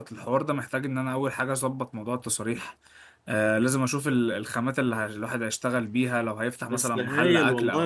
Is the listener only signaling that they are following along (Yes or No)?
No